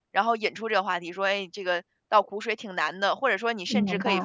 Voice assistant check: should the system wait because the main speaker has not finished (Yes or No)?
Yes